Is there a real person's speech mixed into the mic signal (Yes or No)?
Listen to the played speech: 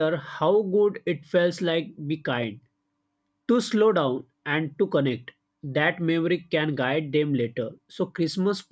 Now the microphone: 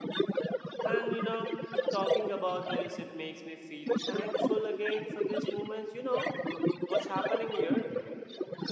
Yes